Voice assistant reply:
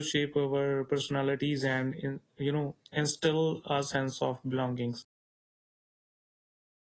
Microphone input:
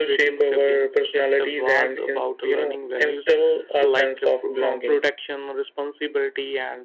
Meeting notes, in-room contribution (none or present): present